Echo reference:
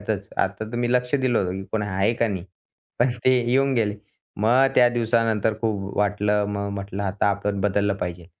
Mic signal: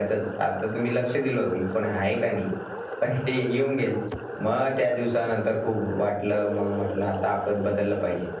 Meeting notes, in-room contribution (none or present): none